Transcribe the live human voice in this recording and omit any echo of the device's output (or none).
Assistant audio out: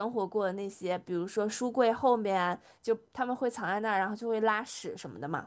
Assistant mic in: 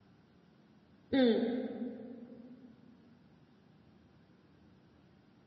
嗯